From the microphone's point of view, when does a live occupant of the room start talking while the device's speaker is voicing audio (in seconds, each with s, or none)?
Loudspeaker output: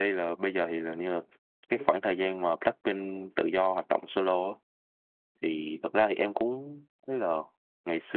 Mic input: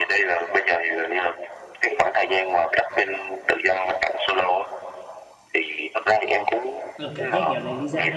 7.0 s